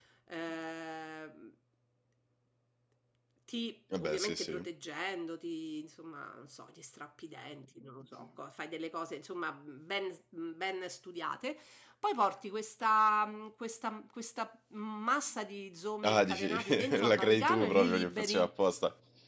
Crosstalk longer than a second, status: present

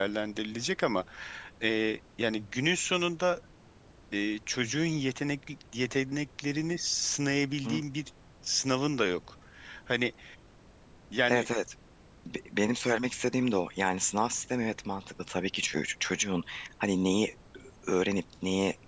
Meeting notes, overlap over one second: none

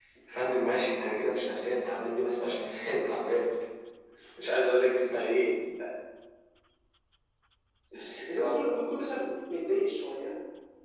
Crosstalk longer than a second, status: none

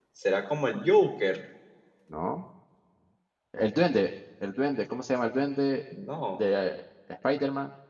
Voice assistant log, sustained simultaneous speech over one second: none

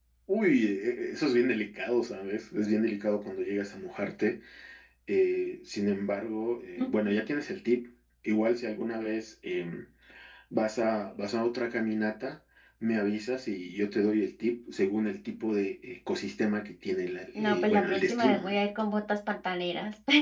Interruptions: present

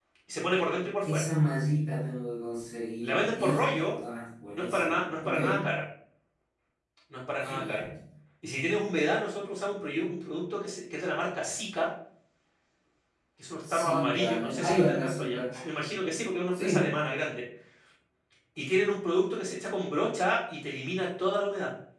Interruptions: present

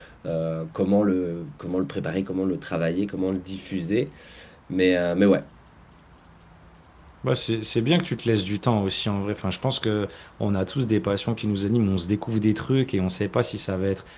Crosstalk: none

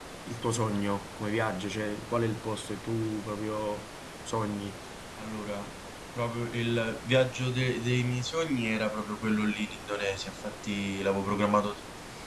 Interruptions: none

